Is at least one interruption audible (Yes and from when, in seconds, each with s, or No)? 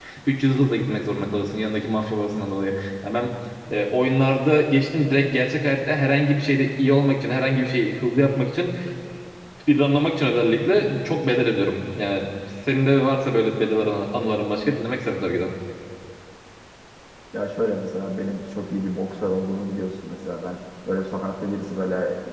No